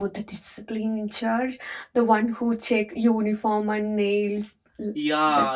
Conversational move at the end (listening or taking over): taking over